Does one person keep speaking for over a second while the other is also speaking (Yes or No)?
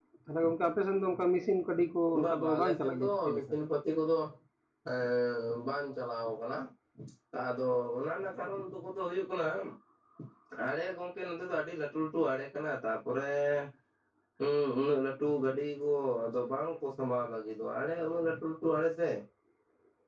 Yes